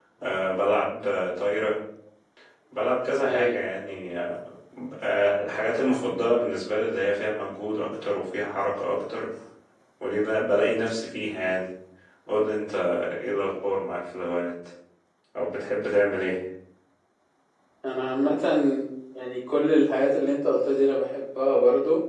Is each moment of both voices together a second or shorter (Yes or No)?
Yes